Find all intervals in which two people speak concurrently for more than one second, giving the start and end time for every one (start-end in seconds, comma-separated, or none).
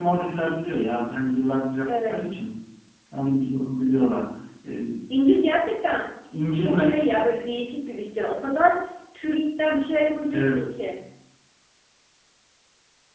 none